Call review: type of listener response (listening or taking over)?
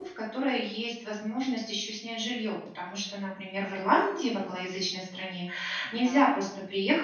listening